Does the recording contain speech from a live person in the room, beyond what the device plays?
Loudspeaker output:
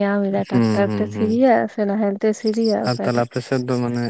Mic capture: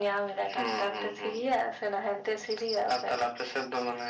No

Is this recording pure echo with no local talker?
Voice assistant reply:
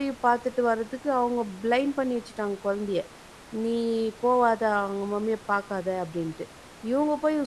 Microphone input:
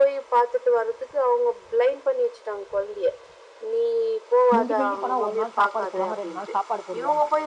No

